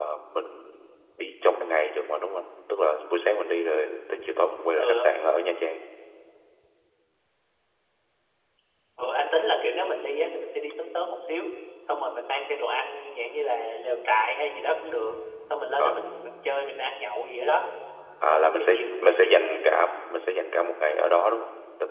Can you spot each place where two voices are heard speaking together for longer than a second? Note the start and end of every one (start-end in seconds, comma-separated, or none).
18.3-19.6